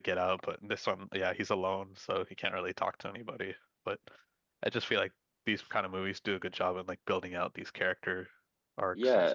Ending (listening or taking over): taking over